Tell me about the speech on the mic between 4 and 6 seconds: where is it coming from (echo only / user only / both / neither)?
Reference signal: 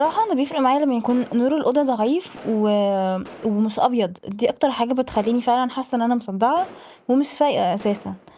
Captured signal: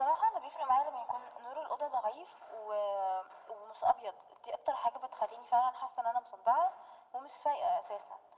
echo only